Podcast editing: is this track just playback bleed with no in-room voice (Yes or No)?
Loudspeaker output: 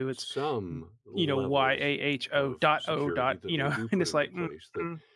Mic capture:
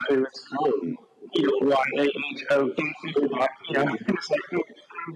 Yes